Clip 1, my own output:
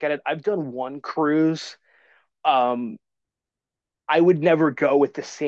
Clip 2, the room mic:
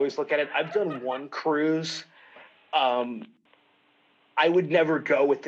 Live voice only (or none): none